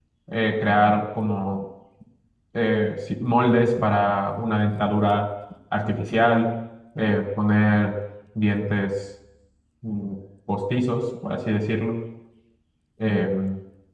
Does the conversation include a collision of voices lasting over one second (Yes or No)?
No